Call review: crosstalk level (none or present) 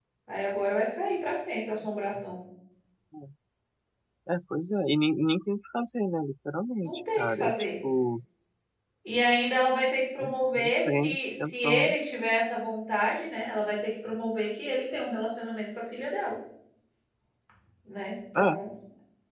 present